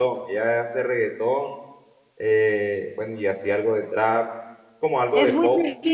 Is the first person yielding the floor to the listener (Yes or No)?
Yes